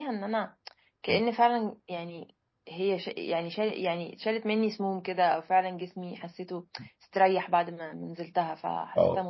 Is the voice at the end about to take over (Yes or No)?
No